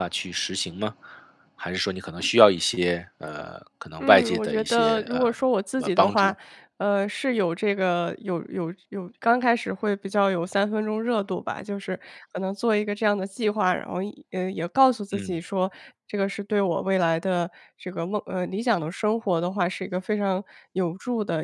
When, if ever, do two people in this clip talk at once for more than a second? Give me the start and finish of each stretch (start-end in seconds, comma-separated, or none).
4.0-5.3